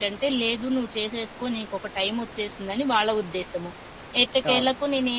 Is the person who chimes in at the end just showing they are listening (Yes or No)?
Yes